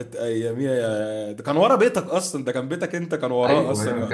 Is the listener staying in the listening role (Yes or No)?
No